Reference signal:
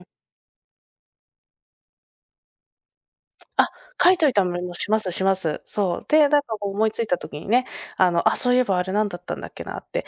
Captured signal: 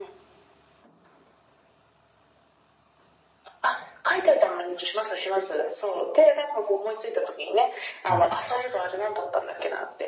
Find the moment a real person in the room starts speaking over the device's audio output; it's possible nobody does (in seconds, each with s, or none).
8.0 s